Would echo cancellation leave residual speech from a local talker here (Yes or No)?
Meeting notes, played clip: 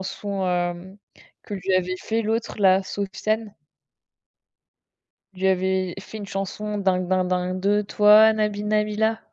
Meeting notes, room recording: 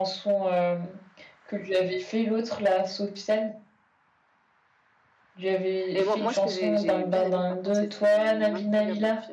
Yes